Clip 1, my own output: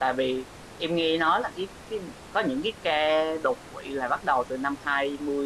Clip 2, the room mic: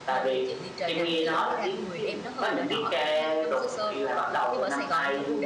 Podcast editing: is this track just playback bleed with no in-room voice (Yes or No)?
No